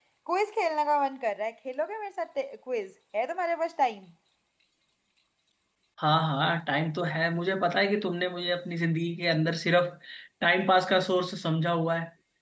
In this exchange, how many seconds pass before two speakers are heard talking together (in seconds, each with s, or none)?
none